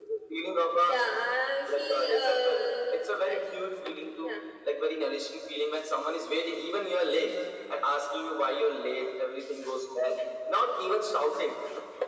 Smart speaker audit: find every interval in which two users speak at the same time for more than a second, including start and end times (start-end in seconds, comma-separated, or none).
1.7-3.4